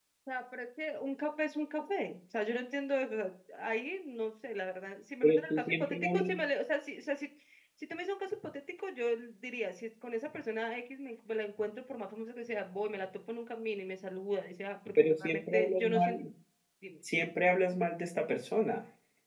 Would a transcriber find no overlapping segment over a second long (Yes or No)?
No